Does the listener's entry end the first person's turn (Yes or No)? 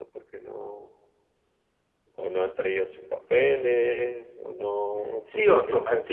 Yes